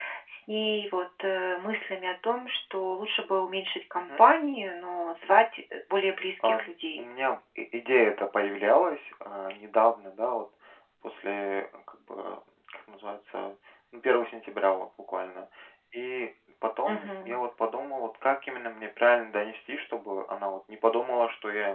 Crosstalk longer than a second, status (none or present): none